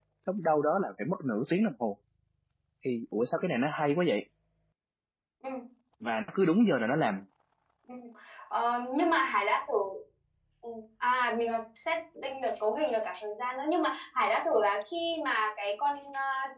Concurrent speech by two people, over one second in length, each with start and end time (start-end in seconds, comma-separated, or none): none